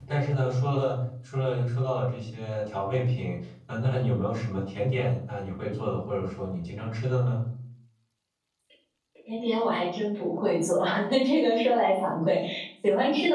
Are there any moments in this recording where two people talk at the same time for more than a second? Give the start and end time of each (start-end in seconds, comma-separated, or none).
none